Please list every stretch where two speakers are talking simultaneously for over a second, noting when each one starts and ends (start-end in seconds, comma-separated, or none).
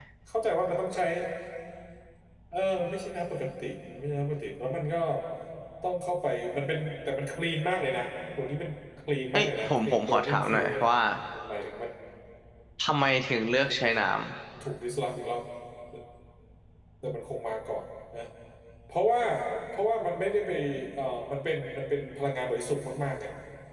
9.3-10.9